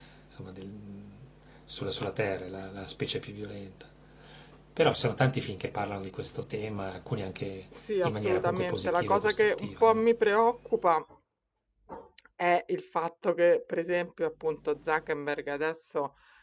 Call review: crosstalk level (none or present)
present